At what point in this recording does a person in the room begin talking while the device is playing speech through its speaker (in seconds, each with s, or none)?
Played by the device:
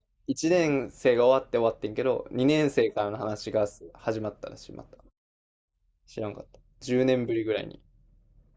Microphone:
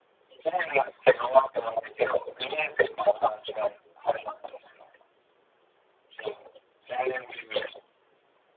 none